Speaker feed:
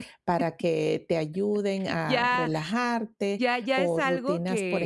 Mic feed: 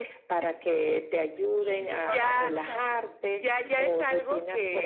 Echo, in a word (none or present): present